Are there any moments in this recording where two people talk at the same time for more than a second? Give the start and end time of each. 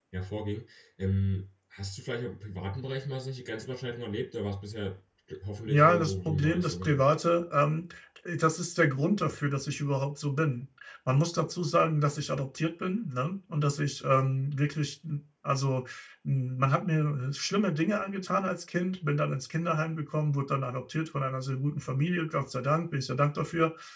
5.7-7.0

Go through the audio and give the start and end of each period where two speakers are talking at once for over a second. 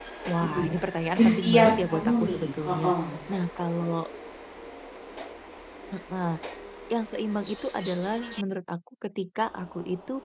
1.2-2.9

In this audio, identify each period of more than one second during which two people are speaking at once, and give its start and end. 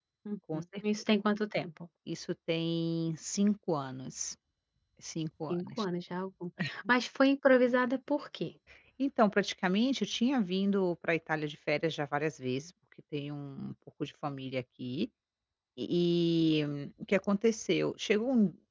none

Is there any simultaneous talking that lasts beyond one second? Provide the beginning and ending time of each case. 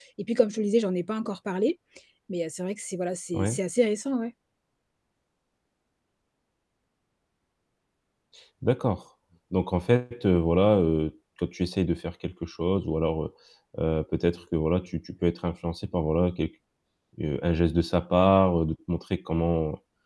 none

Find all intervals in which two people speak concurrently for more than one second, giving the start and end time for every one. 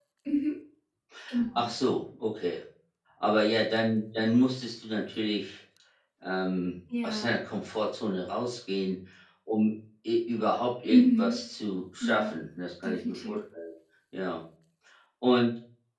none

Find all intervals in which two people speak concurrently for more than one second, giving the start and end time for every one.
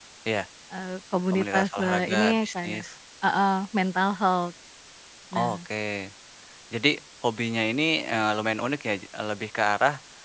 1.3-2.8

